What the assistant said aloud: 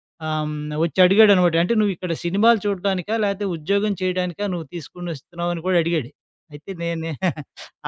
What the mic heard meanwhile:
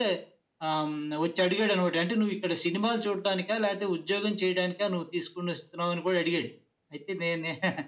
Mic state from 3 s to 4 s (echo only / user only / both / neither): echo only